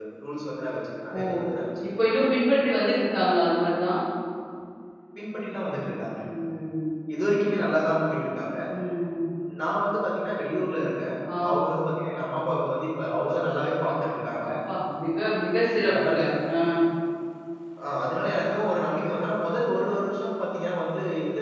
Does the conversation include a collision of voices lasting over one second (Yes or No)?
No